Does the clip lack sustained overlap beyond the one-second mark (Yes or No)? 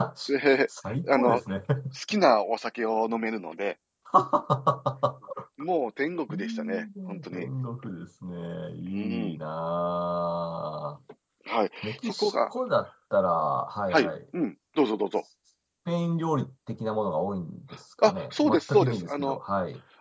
No